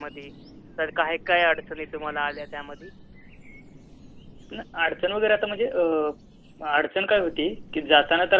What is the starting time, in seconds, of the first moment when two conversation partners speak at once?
none

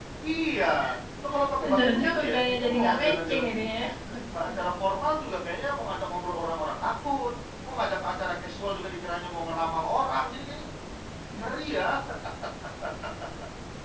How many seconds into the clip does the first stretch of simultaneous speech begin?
1.6 s

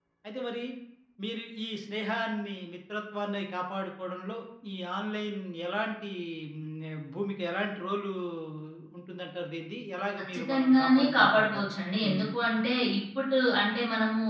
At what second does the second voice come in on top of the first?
10.3 s

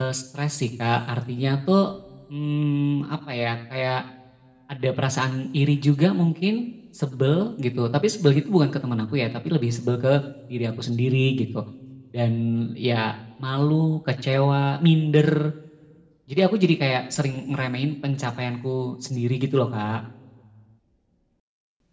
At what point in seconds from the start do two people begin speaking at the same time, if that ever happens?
none

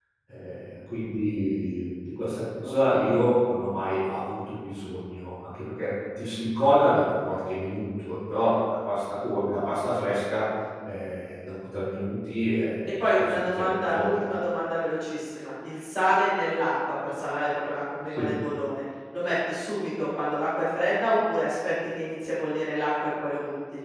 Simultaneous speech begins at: 12.8 s

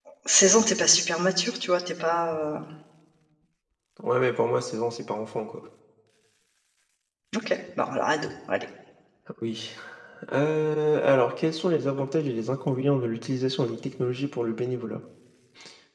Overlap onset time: none

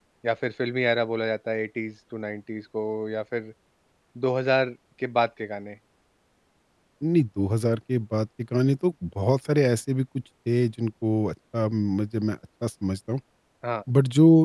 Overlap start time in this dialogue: none

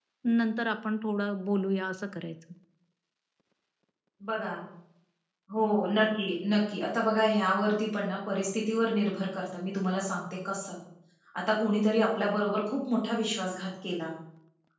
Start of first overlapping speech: none

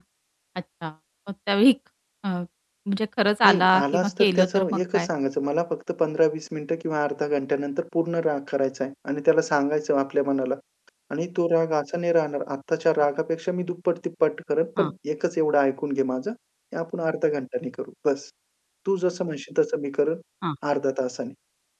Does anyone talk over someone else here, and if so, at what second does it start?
3.4 s

